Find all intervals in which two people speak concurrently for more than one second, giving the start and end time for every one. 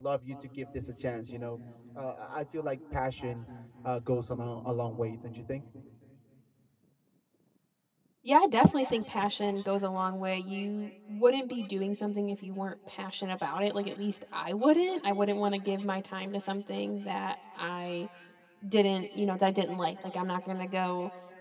none

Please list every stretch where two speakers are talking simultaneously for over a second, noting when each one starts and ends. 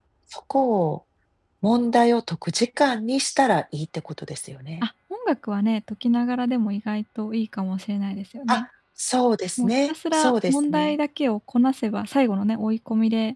9.6-10.9

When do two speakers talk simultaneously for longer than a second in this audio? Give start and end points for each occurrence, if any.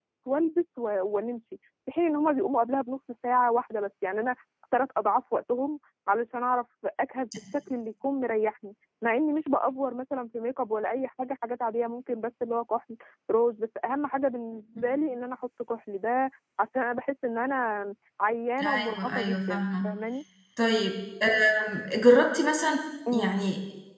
18.6-19.9

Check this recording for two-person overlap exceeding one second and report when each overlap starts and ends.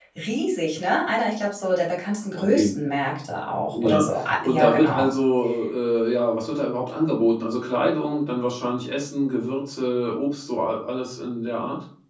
3.8-5.1

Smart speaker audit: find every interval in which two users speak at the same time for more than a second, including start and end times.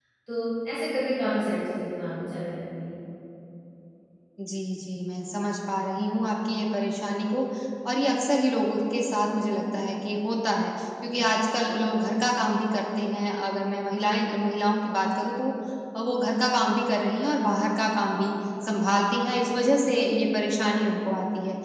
none

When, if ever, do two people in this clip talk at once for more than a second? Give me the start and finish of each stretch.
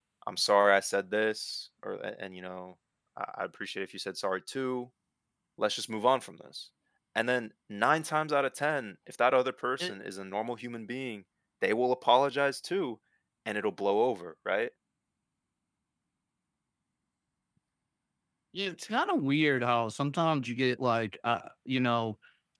none

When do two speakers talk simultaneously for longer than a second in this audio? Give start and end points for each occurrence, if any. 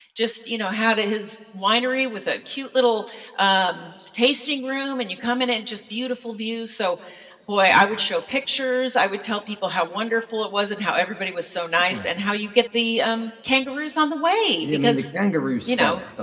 none

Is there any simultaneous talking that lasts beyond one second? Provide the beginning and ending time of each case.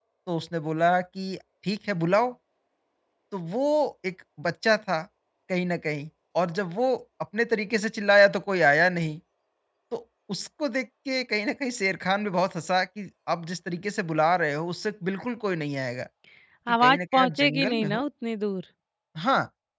16.8-18.0

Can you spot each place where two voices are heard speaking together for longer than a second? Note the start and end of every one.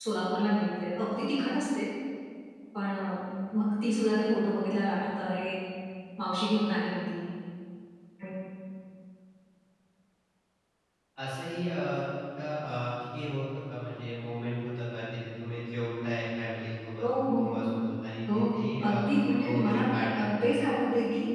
18.9-20.3

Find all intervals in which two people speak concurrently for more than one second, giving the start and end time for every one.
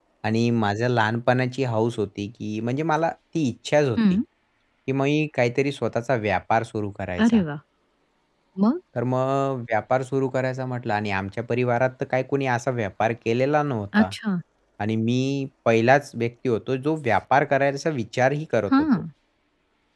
none

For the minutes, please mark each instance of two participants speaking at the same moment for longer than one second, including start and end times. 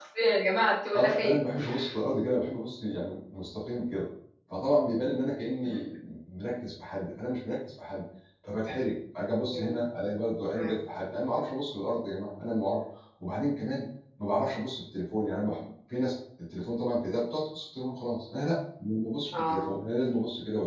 none

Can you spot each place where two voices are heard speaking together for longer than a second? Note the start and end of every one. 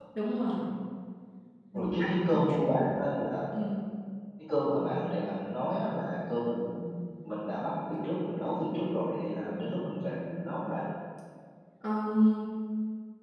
1.7-3.0

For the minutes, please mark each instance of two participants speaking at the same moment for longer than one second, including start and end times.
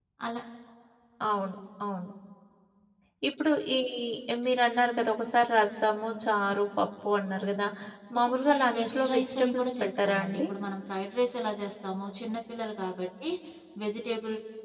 8.2-10.4

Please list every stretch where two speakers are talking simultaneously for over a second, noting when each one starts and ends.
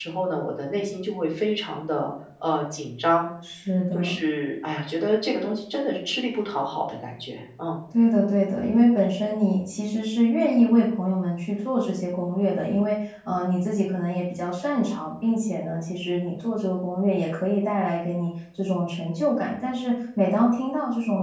none

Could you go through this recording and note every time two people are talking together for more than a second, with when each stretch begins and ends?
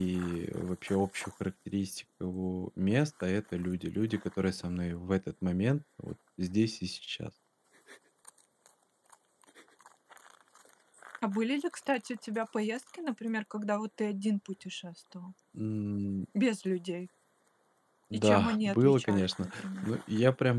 18.1-19.9

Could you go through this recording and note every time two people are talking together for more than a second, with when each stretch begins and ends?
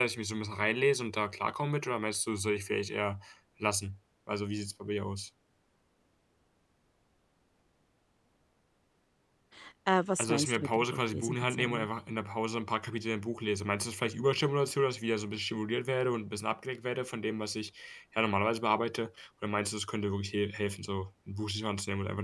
10.2-11.9

